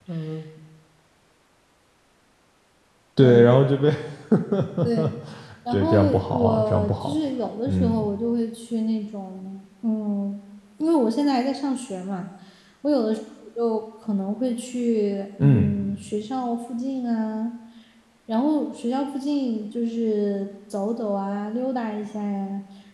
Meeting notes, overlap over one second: present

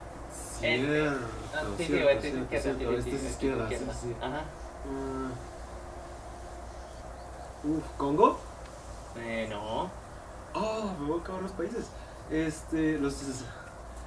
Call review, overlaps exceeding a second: present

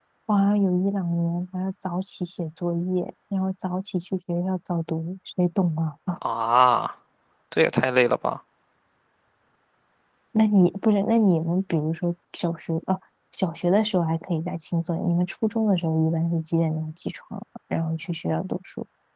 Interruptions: none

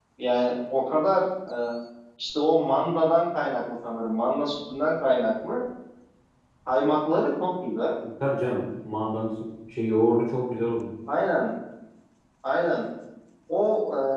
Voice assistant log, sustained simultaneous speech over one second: none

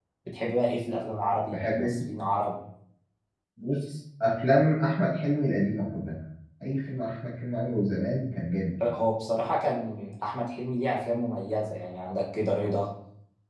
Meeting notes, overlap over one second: none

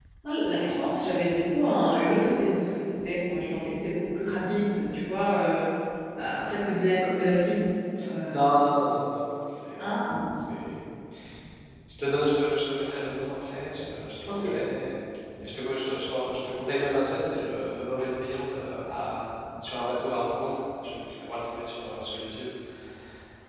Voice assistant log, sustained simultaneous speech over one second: none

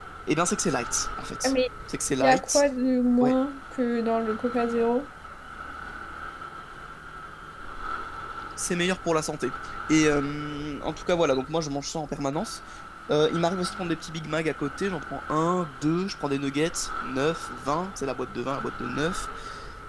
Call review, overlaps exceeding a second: none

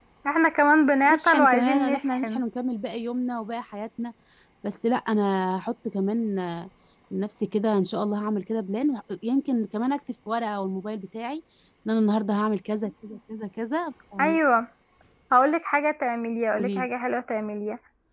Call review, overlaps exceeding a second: present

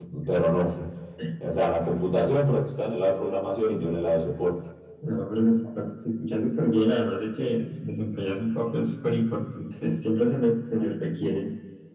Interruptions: none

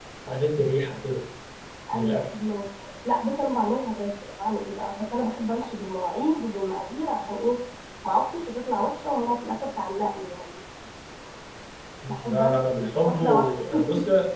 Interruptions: present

